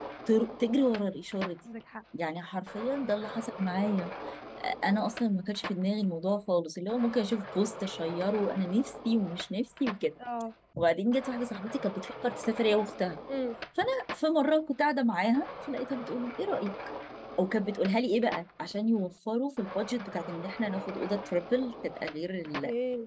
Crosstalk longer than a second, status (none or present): none